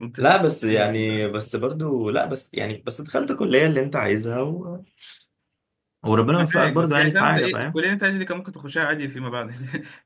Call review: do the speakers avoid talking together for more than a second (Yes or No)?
No